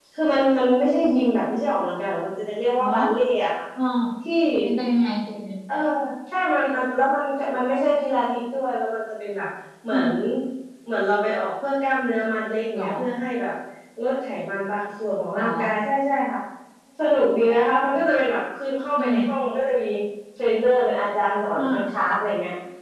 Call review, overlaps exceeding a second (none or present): none